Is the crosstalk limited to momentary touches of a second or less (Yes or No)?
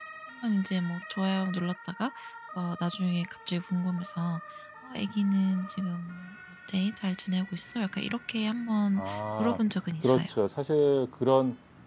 Yes